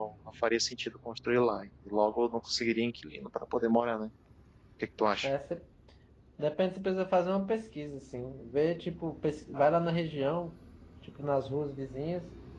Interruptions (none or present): none